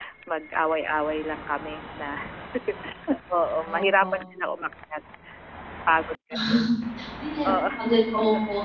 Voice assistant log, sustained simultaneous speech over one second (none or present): none